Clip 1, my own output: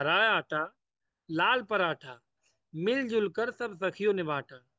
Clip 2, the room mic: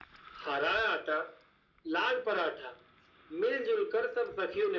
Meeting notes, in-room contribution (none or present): none